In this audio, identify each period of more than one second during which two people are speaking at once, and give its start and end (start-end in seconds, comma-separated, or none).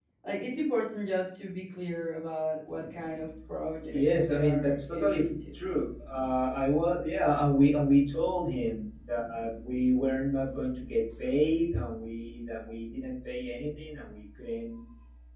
3.9-5.5